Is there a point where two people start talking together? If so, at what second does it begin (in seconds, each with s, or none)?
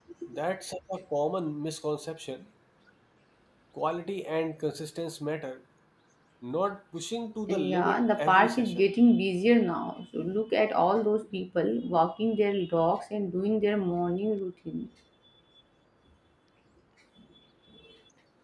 7.5 s